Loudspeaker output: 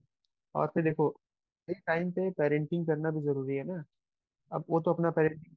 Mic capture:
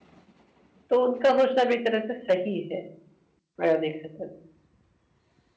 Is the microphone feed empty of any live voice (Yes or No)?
No